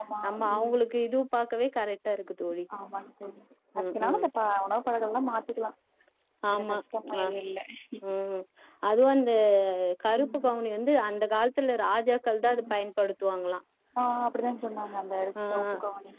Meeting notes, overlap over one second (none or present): none